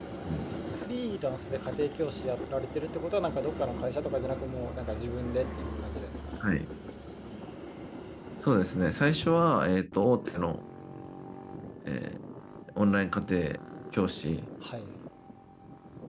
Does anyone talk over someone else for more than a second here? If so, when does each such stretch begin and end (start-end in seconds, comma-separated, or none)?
none